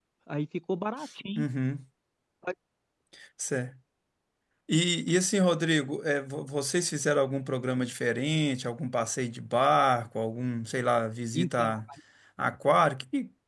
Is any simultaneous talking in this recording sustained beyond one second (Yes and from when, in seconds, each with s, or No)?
No